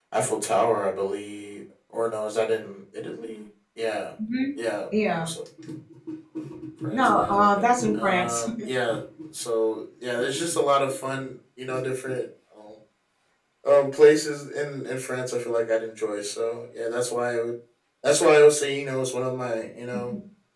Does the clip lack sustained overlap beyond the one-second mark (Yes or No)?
No